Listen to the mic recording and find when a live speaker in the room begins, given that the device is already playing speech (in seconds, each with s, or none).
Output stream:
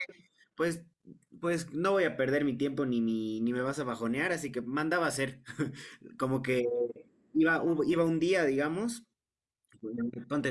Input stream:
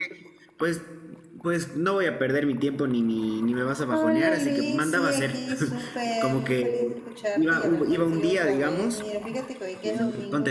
3.9 s